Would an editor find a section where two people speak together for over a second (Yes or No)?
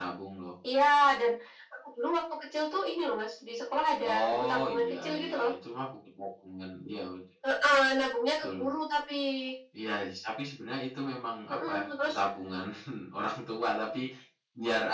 Yes